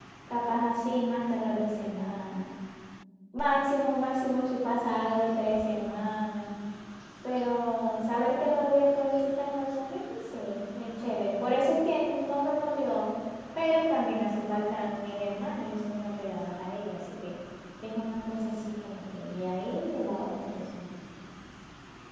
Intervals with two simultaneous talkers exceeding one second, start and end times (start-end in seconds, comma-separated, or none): none